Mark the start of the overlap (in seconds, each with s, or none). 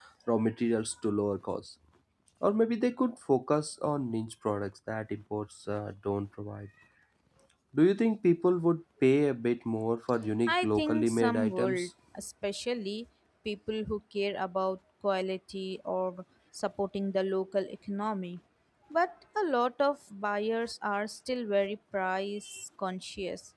10.5 s